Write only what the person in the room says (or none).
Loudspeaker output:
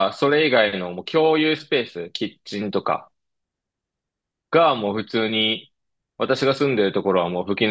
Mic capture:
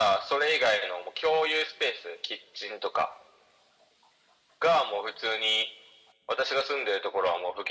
none